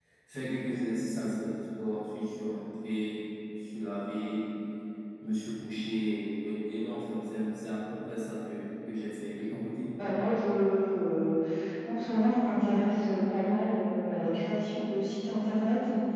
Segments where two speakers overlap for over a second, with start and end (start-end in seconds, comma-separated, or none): none